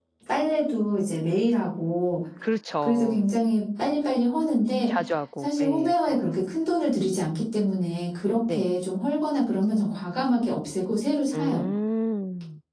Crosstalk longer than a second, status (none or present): none